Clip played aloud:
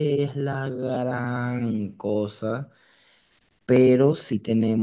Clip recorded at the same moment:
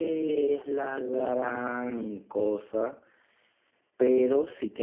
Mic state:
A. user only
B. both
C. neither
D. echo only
D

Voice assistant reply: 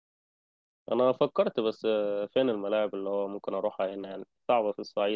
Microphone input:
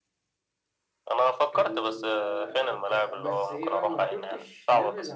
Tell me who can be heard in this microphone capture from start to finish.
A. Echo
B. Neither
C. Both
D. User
C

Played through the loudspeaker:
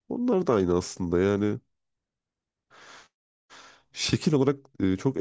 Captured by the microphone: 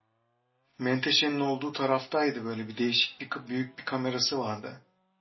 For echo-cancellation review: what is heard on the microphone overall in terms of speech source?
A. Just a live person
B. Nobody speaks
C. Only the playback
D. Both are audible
A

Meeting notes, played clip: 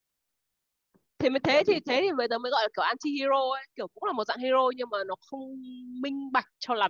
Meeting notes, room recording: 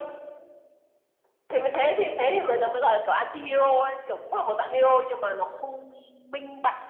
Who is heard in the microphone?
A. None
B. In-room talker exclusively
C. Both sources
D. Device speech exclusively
D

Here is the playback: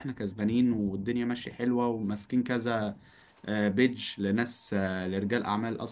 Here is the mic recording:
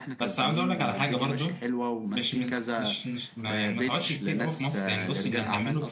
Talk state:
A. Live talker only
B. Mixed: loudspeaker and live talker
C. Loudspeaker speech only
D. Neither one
B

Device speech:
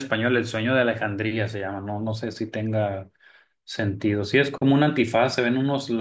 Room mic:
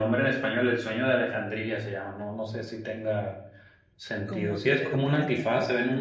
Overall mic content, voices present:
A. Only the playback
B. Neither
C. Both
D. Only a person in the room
C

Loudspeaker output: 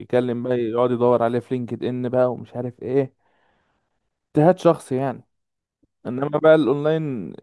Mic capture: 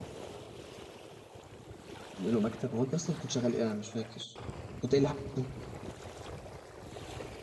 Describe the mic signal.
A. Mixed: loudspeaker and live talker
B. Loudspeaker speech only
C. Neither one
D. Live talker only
D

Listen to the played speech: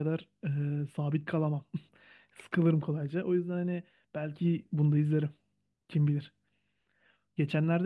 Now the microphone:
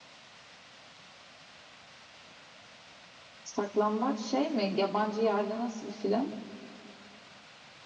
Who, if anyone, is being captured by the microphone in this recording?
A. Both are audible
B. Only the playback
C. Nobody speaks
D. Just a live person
D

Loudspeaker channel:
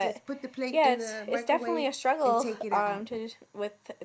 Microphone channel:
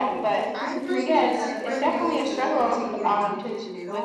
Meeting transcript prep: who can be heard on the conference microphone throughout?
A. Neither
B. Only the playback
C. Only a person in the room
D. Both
D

